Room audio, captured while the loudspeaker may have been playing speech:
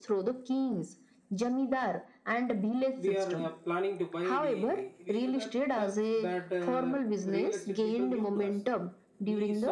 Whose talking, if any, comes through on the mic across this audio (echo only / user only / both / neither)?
both